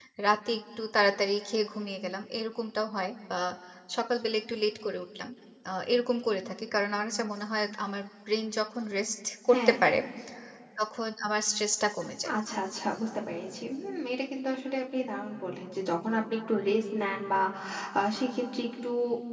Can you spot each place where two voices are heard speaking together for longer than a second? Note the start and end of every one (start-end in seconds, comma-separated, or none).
none